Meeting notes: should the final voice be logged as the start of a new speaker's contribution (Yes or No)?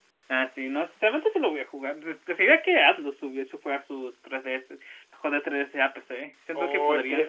Yes